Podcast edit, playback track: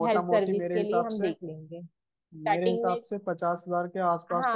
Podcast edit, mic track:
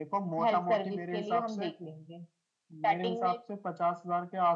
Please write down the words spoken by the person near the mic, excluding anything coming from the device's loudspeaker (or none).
none